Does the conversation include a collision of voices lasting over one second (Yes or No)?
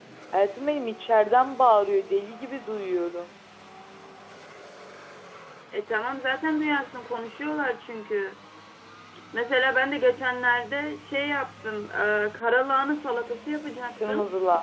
No